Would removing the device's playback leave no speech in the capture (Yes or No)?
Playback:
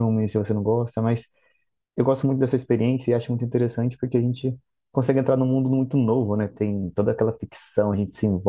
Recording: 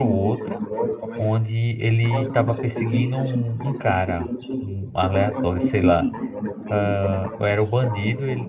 No